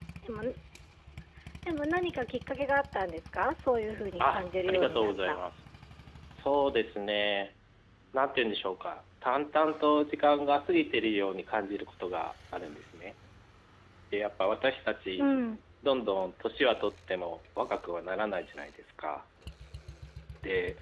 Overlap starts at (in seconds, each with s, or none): 4.2 s